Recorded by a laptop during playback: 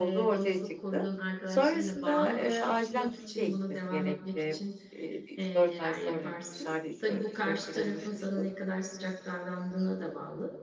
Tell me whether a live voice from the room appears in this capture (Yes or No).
Yes